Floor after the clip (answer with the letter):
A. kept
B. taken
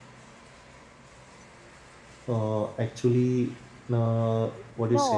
B